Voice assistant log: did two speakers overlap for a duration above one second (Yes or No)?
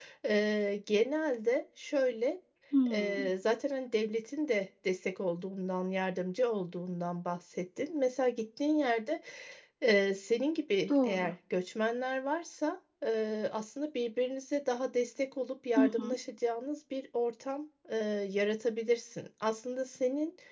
No